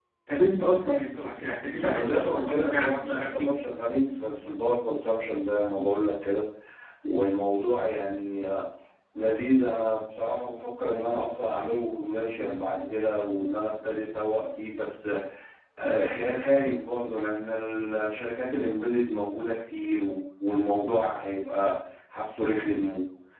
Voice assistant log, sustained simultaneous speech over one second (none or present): present